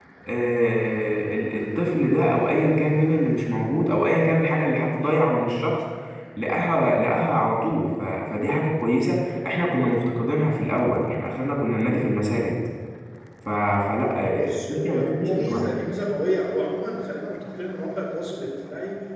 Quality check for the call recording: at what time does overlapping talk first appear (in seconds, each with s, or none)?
14.3 s